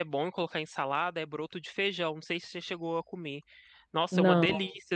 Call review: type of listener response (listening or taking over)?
listening